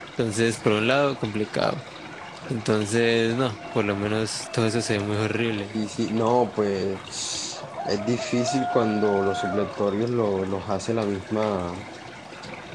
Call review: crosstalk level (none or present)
none